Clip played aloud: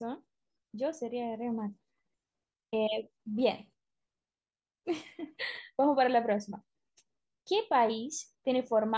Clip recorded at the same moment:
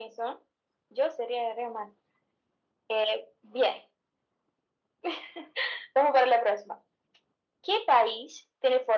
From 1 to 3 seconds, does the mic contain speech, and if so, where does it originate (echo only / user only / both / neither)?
echo only